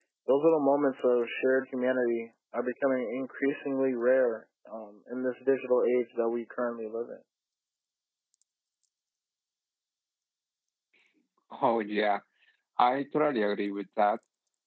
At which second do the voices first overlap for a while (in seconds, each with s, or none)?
none